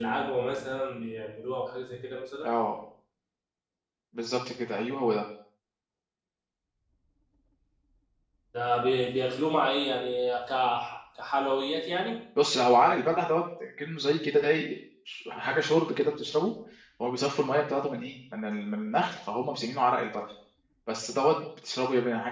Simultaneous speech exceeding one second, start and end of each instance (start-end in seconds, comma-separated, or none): none